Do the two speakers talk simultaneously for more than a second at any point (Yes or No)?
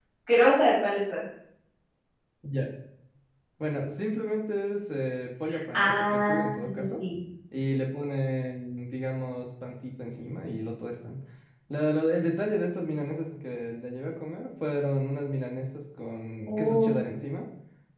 Yes